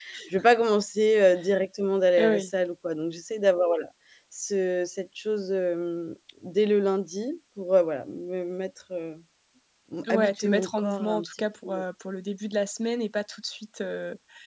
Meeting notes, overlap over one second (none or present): present